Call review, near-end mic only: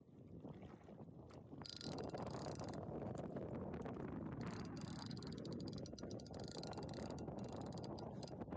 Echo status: none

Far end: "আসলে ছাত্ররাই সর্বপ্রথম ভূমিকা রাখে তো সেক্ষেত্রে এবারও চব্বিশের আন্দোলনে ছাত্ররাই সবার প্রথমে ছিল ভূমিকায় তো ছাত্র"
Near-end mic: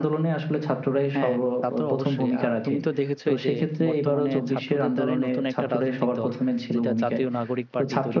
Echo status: present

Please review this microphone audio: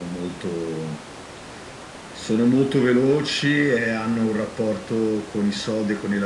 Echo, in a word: present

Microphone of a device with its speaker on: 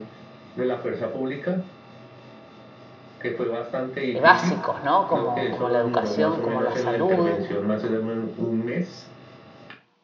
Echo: present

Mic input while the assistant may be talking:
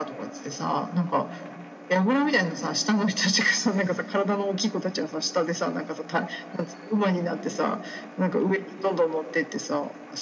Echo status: present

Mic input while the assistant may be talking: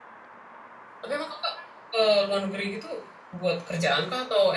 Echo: none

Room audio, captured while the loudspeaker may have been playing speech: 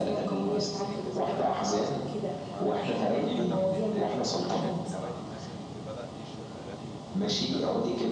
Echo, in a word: present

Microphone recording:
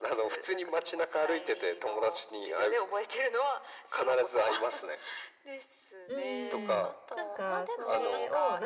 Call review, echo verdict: present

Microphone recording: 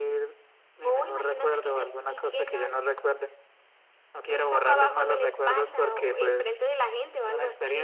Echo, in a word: present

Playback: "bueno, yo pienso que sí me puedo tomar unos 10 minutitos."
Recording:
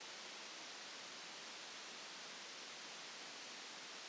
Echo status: none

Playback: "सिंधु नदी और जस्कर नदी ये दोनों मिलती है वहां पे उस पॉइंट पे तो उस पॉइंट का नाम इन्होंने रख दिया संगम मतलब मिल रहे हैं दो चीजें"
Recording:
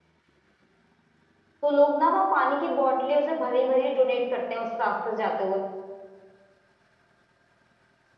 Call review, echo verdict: none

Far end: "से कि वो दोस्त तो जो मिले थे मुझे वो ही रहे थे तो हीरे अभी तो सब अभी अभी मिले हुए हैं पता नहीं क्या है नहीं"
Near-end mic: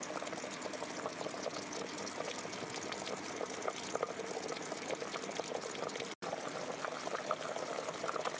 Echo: none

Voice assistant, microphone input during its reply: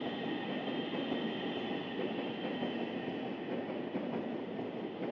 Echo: none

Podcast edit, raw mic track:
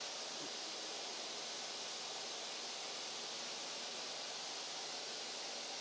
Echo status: none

